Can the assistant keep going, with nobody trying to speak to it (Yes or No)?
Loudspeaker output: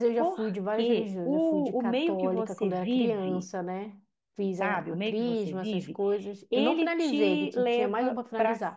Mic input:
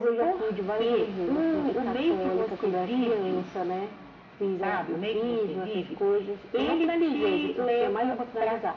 Yes